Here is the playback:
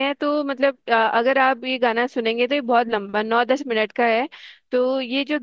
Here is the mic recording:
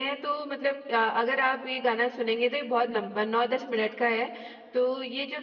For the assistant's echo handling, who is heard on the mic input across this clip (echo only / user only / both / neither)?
echo only